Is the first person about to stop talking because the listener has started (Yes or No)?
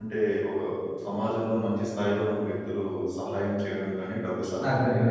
Yes